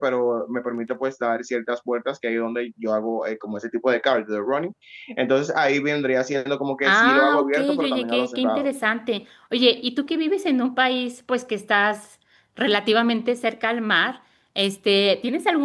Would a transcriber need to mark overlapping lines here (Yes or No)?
Yes